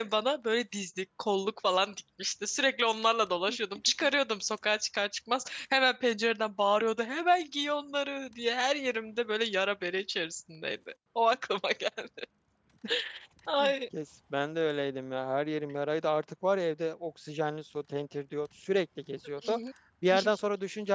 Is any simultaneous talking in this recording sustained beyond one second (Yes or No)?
No